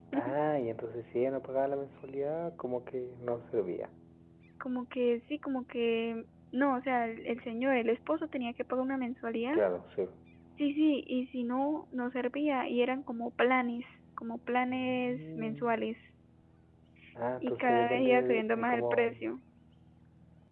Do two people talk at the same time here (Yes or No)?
Yes